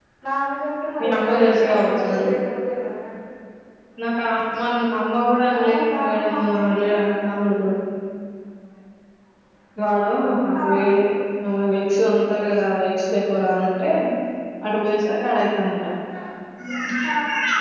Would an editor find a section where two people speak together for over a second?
Yes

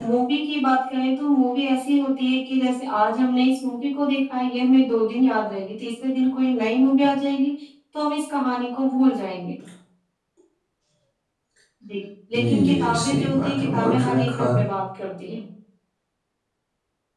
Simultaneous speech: Yes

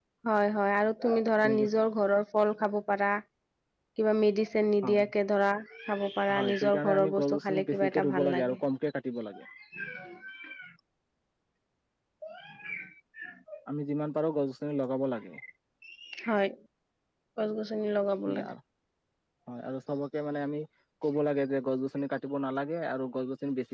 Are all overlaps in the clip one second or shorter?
No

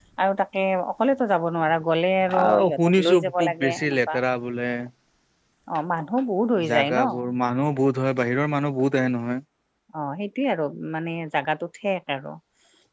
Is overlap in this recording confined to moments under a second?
No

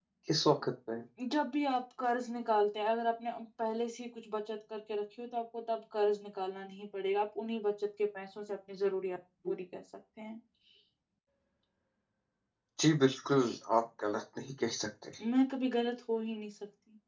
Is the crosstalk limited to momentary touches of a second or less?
Yes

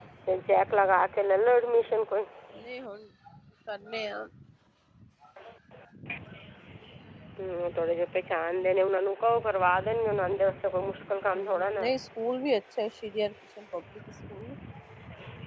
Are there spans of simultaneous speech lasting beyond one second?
No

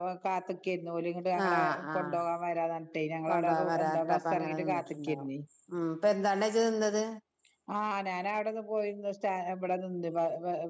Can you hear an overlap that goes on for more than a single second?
Yes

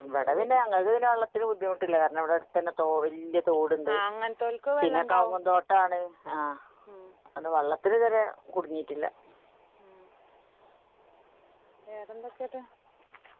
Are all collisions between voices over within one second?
Yes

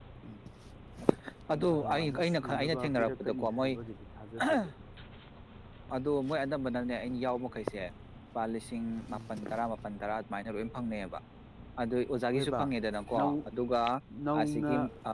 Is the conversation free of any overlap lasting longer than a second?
No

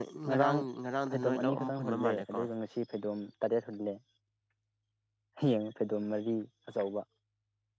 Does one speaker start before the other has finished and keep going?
Yes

